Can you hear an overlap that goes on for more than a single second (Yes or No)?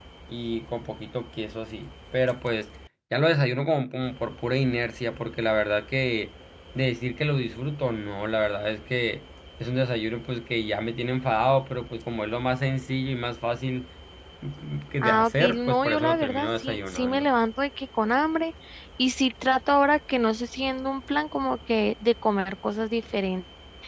Yes